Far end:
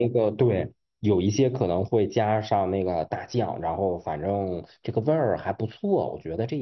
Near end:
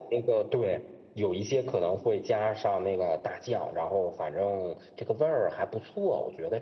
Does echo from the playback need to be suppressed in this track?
Yes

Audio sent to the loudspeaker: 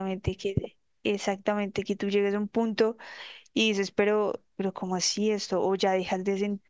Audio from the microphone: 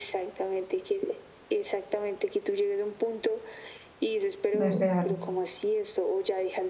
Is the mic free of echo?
No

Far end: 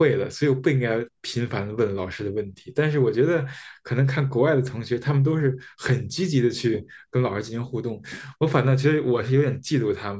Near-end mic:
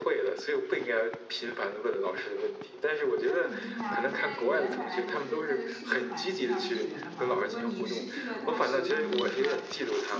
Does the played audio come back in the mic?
Yes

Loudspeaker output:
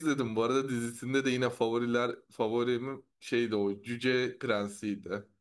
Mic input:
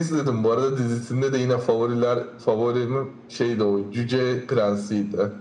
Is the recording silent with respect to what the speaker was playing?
No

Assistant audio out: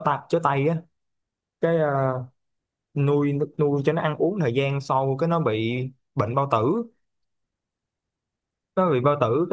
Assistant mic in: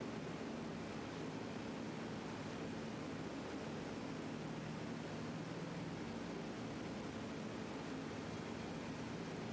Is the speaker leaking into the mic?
No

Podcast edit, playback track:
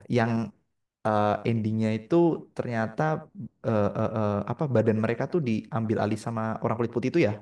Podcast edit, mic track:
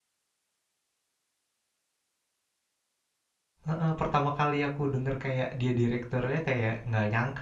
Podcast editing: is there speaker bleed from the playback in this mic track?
No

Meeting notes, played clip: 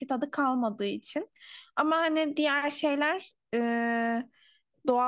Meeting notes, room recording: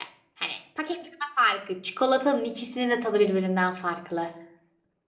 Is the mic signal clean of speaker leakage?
Yes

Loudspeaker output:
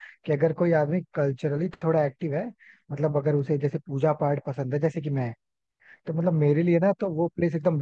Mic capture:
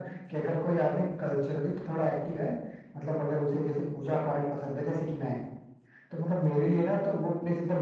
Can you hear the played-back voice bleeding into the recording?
Yes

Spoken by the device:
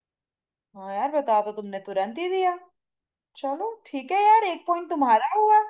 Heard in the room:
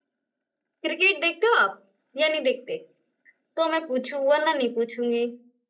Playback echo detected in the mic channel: No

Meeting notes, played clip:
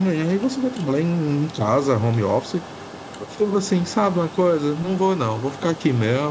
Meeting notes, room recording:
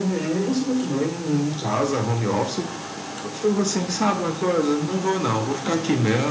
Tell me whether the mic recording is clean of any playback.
No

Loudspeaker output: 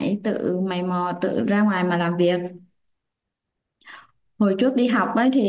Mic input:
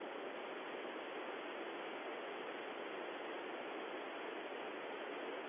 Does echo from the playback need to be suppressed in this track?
No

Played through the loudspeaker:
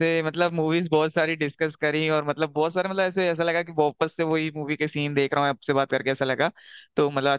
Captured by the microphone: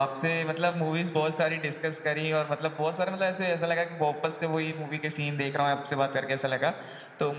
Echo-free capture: No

